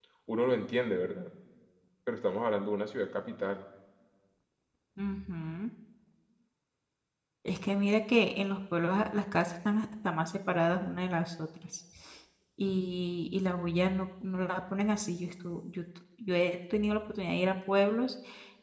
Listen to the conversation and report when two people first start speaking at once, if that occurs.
none

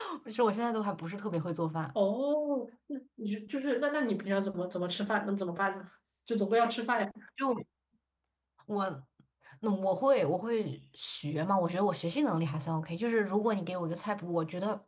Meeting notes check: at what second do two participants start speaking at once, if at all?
none

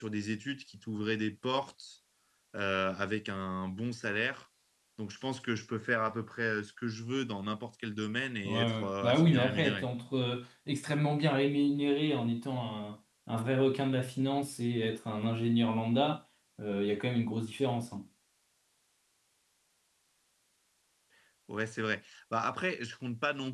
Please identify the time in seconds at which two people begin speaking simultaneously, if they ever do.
8.4 s

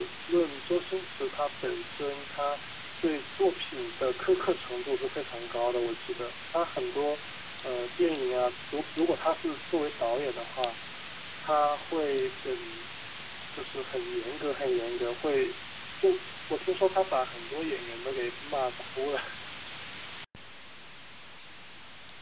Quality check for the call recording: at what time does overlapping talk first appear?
none

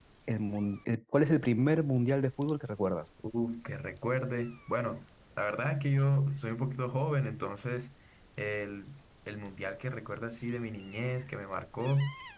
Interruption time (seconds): none

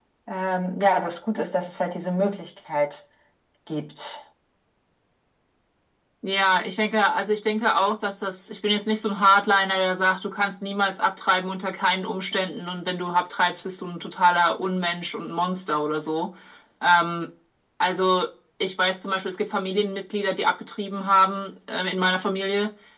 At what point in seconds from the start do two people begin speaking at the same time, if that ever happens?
none

